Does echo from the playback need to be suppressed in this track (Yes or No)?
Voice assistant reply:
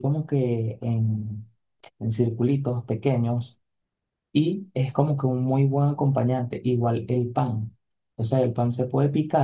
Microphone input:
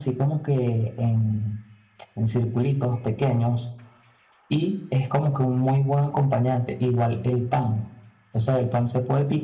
Yes